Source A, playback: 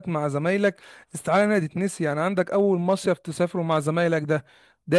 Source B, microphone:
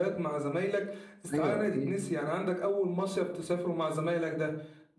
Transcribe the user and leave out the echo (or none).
ايوه اكيد